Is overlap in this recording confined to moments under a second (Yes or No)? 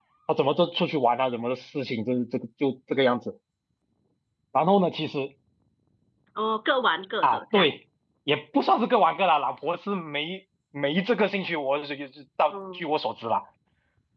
Yes